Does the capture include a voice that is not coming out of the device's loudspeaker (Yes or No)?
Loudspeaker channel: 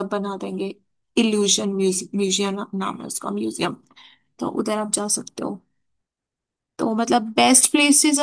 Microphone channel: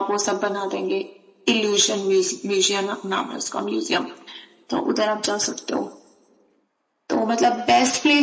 No